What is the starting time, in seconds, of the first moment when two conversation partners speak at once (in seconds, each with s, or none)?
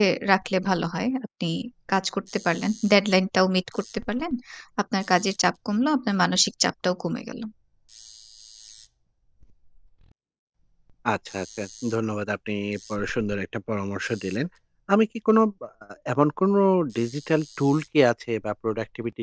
none